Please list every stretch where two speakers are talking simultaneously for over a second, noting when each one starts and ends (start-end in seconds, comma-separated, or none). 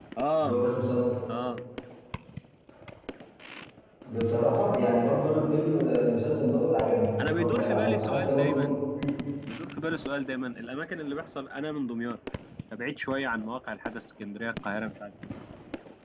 7.3-8.8